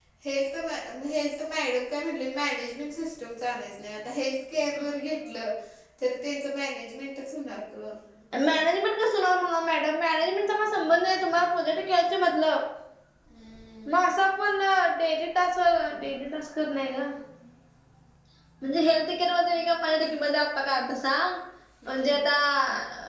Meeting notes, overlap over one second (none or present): none